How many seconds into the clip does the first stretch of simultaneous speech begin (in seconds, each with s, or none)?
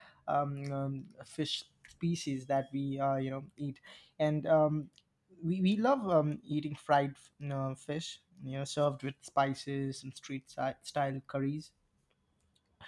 none